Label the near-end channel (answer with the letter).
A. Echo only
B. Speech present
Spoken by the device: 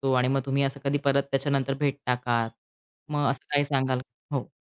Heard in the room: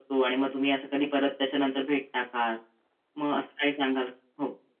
A